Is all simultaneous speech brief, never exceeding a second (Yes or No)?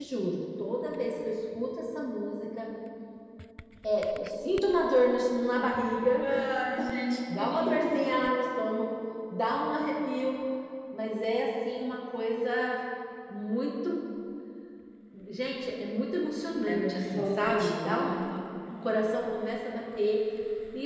No